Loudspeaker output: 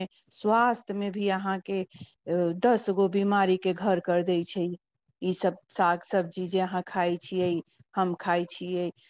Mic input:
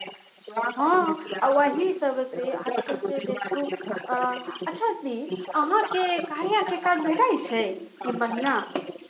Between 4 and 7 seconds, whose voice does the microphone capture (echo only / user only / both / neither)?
both